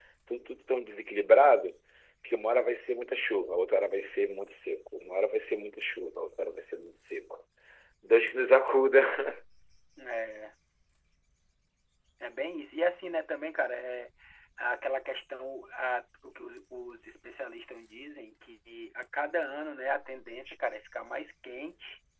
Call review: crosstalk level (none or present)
none